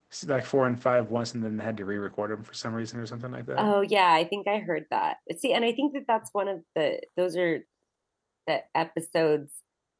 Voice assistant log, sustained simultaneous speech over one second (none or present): none